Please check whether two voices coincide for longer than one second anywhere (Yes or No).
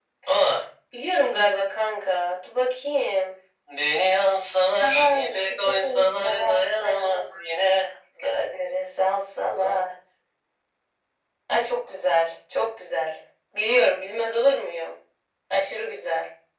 Yes